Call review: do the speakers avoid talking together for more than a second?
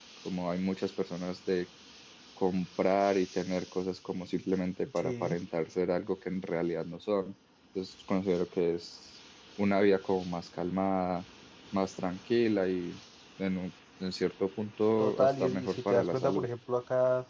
No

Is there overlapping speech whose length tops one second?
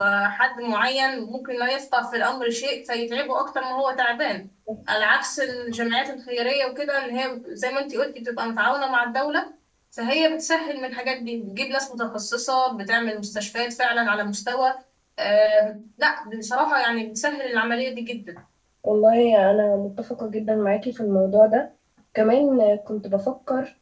No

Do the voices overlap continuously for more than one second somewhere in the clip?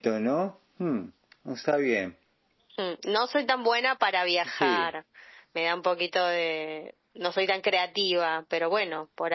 No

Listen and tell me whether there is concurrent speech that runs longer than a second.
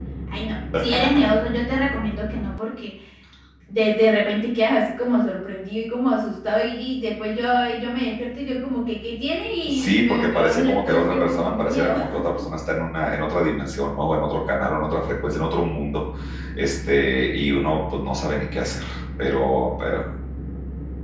Yes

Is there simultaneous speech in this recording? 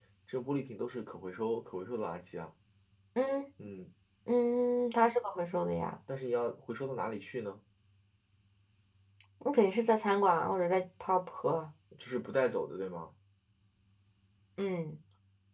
No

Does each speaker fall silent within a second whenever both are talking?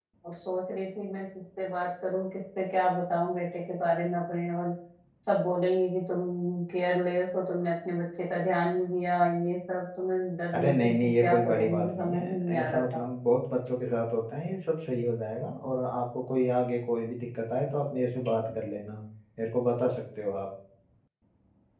No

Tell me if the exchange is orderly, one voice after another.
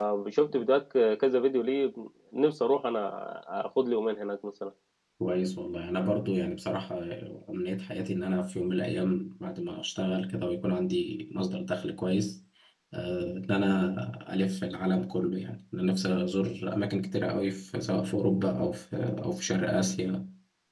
Yes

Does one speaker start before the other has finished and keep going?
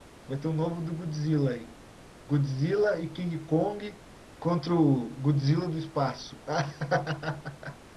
No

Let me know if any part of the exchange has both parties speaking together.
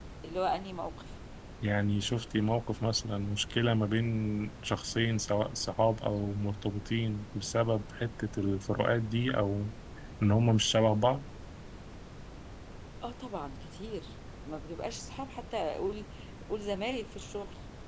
No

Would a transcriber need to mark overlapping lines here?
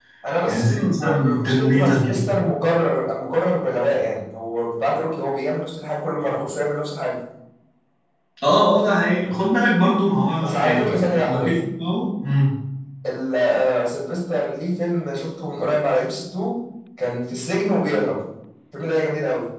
Yes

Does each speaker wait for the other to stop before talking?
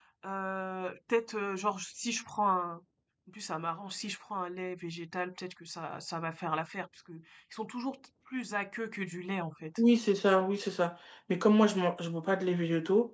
Yes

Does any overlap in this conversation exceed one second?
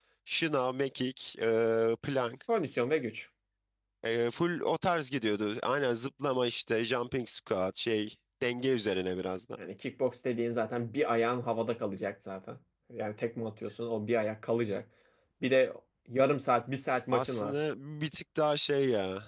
No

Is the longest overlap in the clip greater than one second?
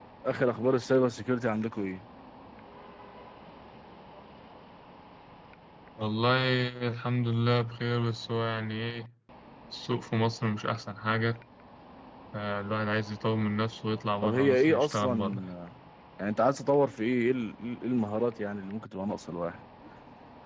Yes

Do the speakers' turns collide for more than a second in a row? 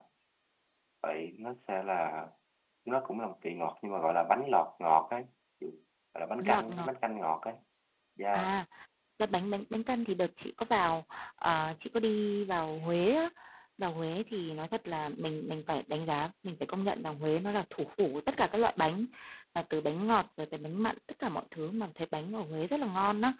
No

